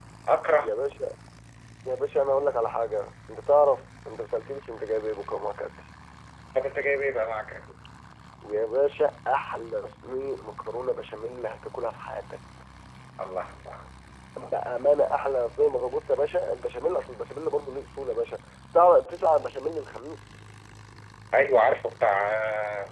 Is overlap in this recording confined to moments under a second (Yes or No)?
Yes